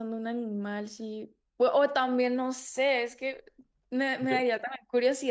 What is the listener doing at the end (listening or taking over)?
listening